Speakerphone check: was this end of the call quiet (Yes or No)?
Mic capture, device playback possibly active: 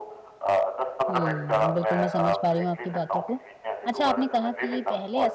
No